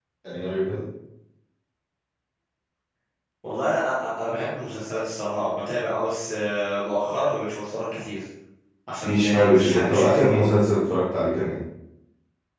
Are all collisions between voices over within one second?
No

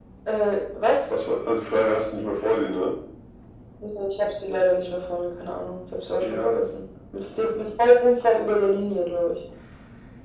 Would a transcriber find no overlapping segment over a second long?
Yes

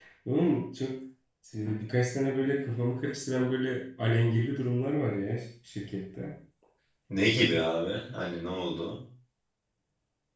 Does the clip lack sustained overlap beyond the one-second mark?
Yes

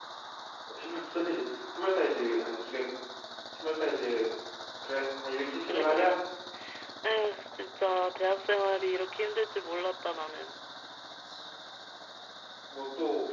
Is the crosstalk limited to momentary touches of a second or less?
Yes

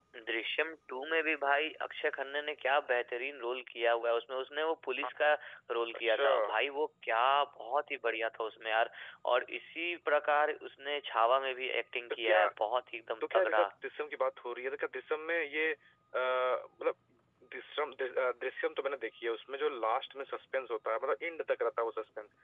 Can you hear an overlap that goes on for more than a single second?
No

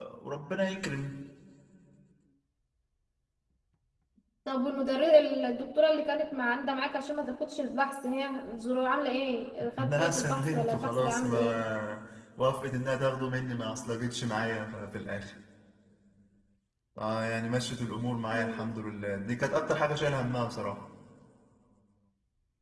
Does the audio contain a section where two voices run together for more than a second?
Yes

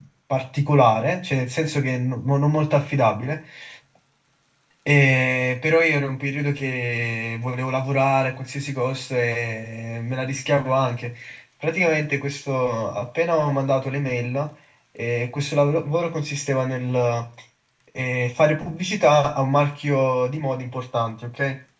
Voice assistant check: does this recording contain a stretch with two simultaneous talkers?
No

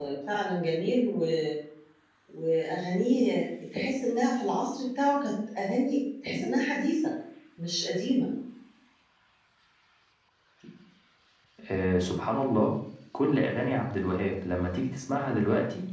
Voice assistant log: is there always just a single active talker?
Yes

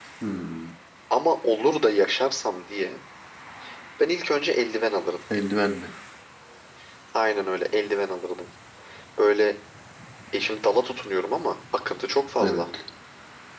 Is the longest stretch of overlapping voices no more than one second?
Yes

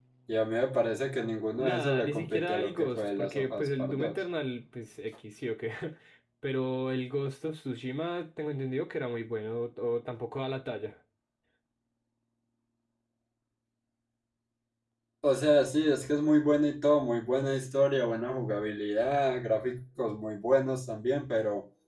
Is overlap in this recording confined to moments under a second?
No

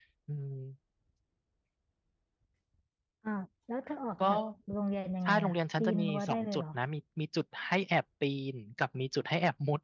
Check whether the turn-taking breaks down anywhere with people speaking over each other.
Yes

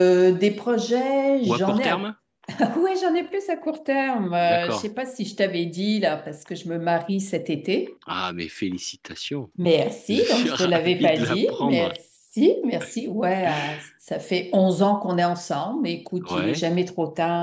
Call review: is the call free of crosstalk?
No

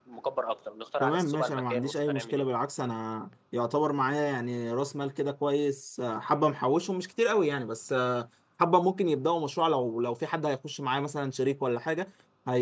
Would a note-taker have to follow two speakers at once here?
Yes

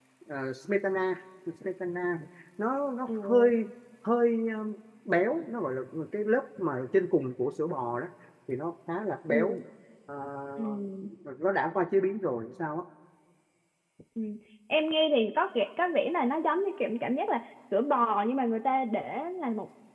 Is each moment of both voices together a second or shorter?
Yes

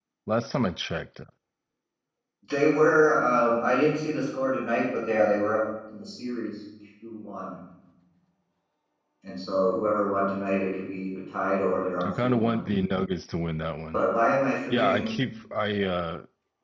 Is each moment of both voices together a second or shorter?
Yes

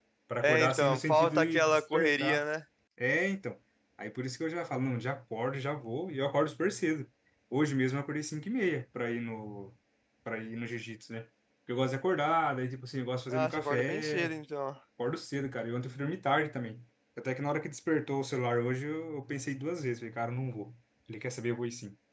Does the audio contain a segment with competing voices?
Yes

